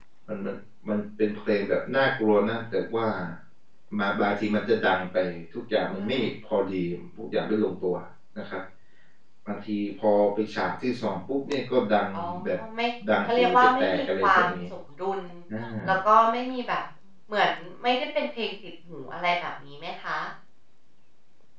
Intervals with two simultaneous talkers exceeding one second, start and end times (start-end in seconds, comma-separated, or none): 13.3-14.6